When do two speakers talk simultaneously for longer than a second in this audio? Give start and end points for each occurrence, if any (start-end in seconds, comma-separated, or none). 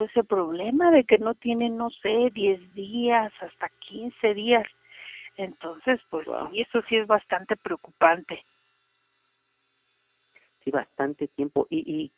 none